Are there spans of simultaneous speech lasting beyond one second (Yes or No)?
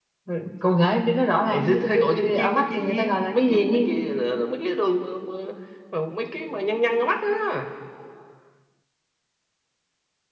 Yes